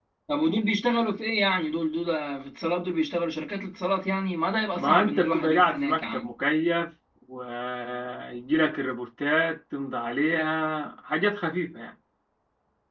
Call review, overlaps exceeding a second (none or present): present